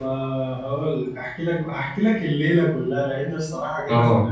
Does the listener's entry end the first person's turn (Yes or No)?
No